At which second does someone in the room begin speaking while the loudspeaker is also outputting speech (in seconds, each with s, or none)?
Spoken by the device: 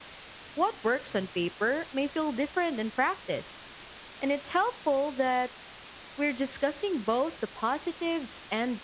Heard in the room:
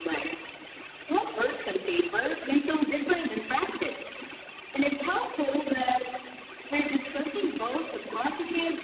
none